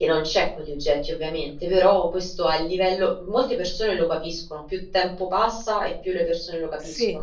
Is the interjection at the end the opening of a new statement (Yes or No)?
Yes